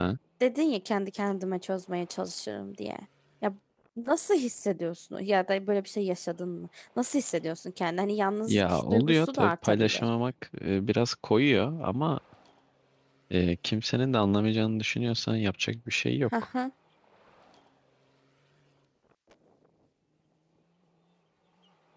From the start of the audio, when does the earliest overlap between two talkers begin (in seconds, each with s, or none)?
8.5 s